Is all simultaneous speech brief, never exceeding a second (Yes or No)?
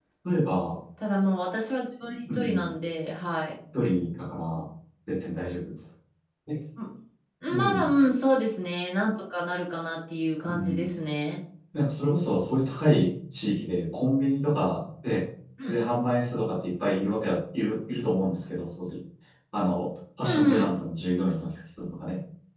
Yes